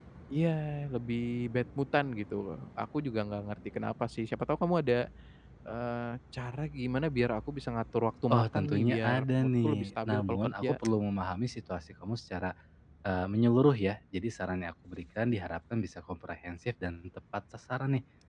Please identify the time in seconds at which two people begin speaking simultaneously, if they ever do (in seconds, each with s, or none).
8.3 s